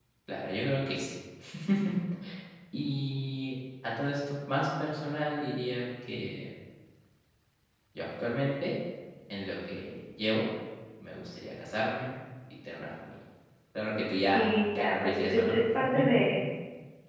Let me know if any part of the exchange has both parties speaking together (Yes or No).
Yes